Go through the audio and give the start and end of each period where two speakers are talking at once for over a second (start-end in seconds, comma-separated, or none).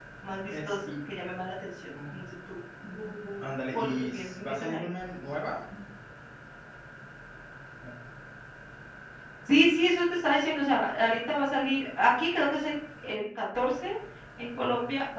3.4-4.8